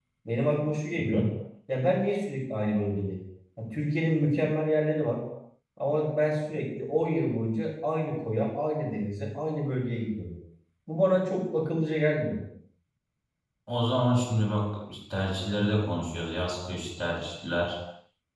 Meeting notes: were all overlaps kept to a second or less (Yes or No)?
Yes